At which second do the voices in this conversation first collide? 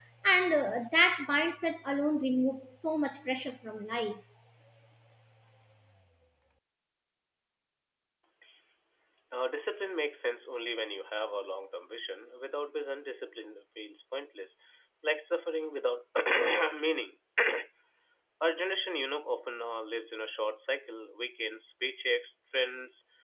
none

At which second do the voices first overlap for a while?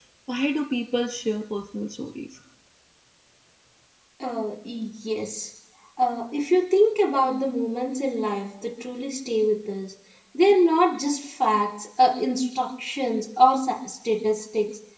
none

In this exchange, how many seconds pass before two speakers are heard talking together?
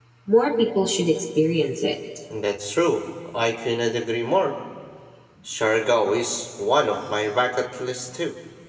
none

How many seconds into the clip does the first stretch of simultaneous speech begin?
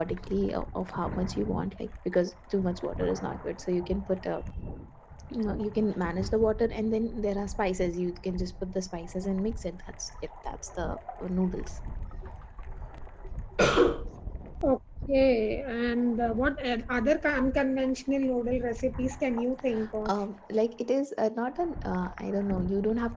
none

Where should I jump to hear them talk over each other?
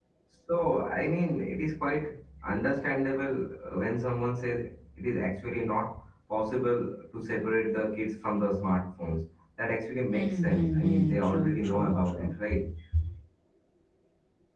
10.1 s

